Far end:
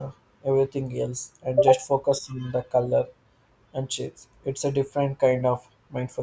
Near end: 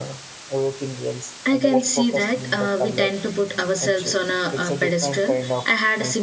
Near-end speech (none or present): present